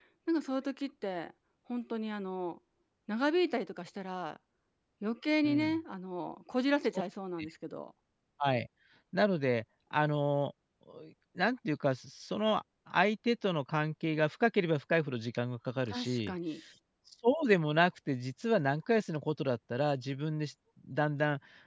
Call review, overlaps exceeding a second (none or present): none